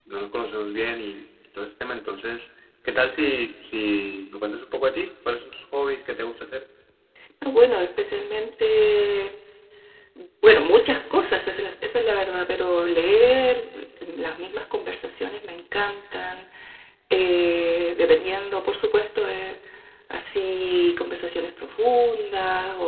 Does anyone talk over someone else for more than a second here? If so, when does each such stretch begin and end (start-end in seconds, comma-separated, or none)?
none